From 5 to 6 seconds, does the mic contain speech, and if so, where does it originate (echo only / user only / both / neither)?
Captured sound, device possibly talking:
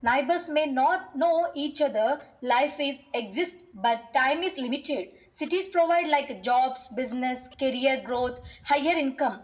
echo only